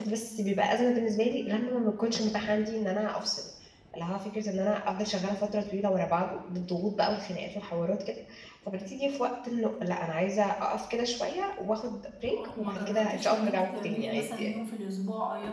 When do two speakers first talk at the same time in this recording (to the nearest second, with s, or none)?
12 s